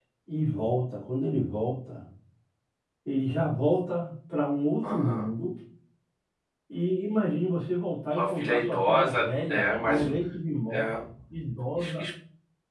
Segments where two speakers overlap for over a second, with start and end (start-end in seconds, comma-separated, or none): 8.2-10.0